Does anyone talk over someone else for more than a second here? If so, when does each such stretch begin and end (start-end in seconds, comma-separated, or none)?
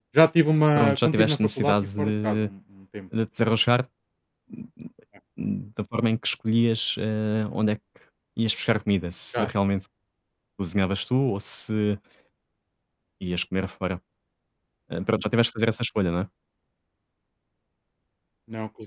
0.8-2.5